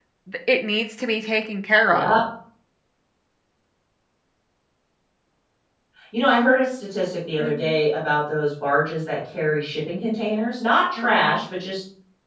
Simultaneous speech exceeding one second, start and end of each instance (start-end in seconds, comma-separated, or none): none